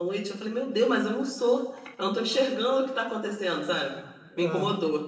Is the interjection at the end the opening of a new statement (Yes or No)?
Yes